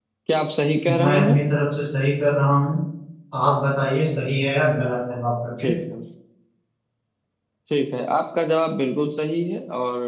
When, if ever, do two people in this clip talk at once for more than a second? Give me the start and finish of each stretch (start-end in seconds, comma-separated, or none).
none